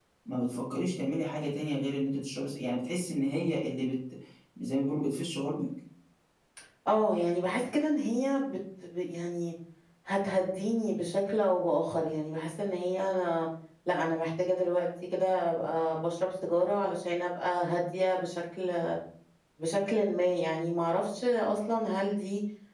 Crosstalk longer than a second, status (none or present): none